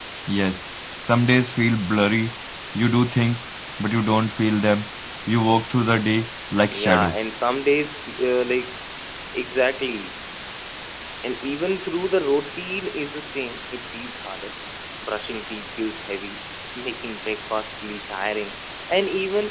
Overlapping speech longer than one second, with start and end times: none

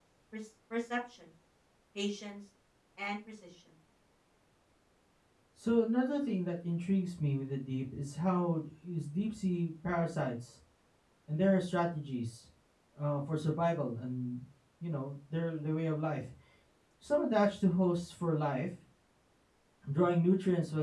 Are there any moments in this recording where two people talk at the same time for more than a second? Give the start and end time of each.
none

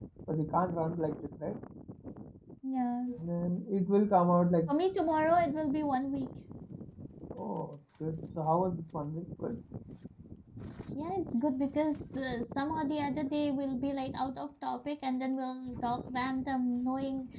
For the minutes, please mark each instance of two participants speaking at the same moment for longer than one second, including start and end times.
none

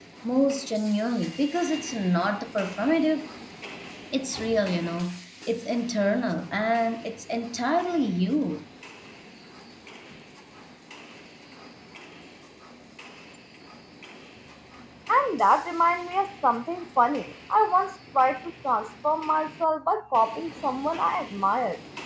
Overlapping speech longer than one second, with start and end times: none

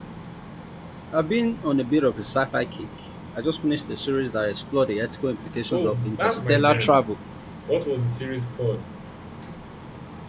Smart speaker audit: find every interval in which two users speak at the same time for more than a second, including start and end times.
5.7-7.0

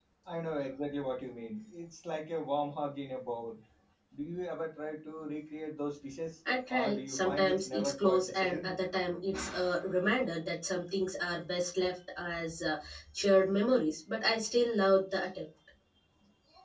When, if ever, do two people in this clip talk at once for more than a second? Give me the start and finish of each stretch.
6.7-8.7

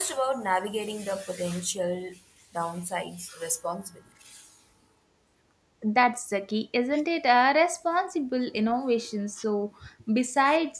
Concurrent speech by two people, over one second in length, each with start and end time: none

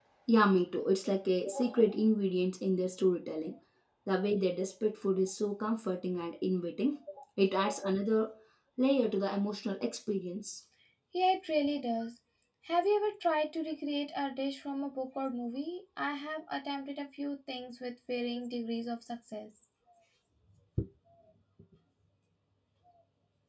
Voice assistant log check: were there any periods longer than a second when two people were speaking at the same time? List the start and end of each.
none

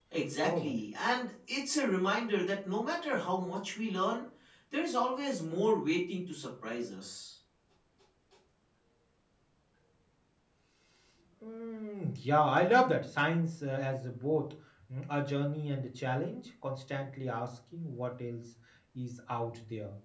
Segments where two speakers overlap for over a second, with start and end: none

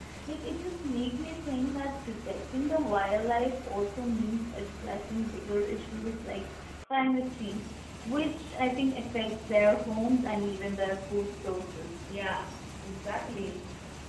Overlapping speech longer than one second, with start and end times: none

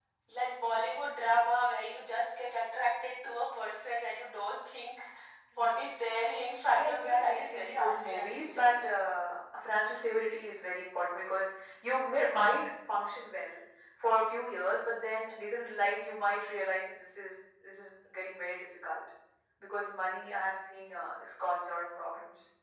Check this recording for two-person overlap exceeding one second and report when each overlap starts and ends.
6.7-8.6

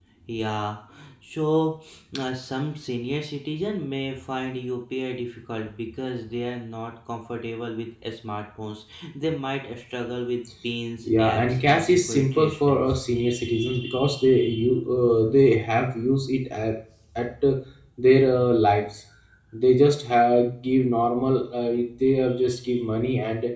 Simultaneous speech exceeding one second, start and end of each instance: 11.0-13.0

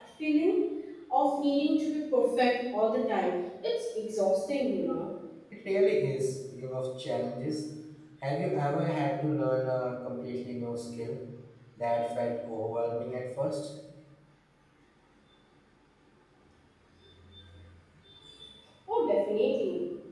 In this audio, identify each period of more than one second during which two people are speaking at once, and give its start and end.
none

